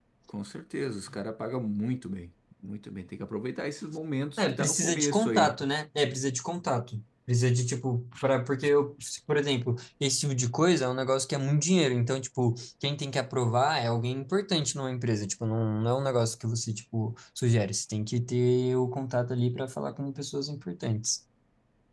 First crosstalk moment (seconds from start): 4 s

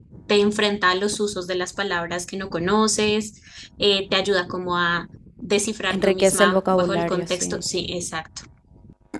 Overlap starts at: 6 s

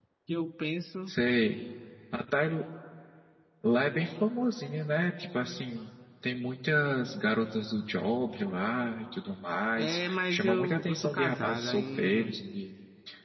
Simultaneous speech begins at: 10 s

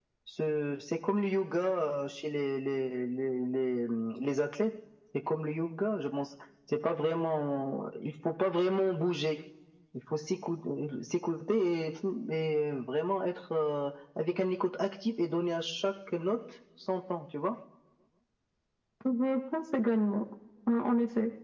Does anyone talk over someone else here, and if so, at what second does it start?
none

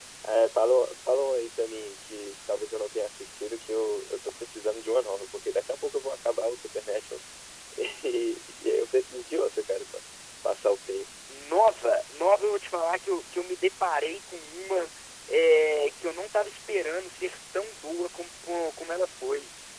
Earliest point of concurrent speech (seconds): none

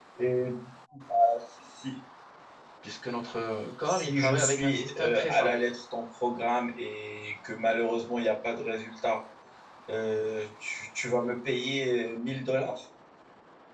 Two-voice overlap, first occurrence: 4 s

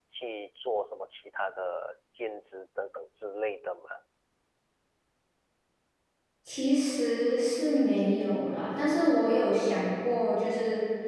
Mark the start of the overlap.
none

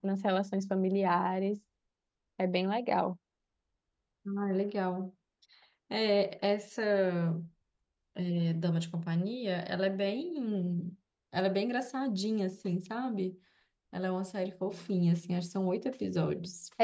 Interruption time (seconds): none

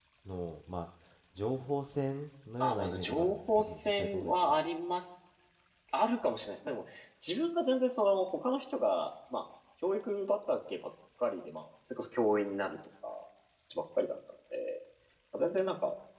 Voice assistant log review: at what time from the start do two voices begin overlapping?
3 s

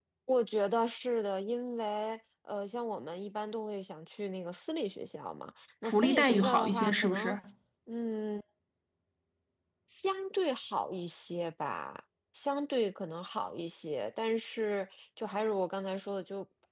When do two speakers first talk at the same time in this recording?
6 s

